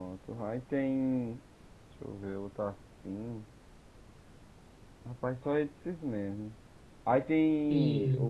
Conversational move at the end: listening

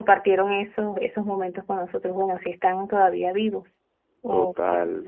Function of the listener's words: taking over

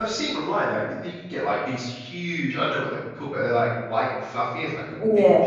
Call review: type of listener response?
listening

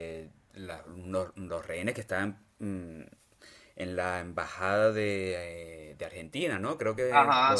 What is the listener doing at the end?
taking over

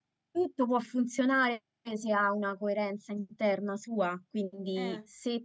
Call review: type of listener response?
listening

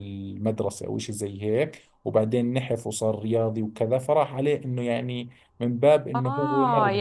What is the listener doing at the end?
taking over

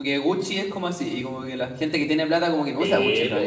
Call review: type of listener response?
taking over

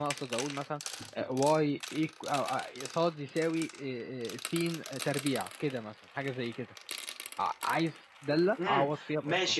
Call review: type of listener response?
taking over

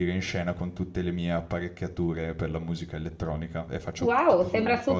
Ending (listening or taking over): taking over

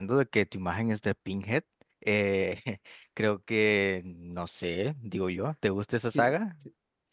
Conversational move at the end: taking over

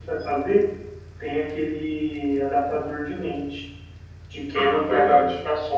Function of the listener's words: listening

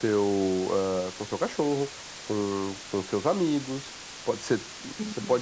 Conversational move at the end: listening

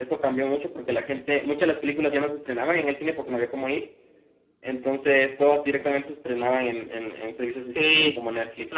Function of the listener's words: taking over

